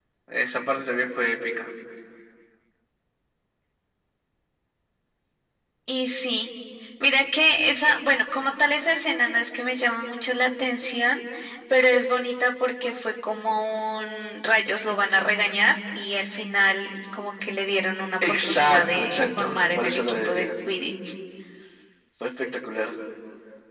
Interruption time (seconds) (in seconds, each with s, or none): 18.2 s